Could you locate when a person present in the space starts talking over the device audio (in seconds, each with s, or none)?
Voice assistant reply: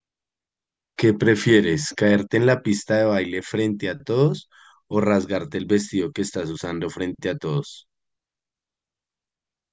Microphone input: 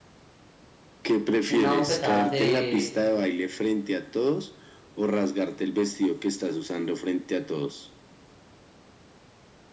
1.5 s